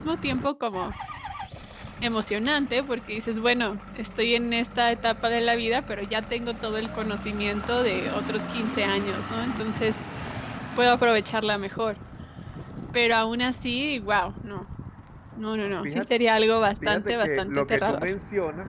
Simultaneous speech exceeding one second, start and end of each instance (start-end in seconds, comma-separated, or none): 16.8-18.1